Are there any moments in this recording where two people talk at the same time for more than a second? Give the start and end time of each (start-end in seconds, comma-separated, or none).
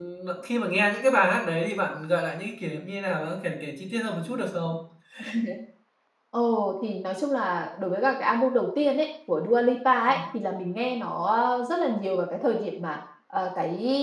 none